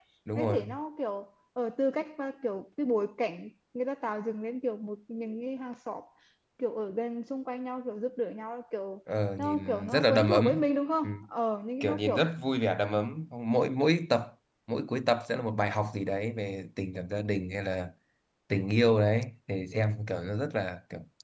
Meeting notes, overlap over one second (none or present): present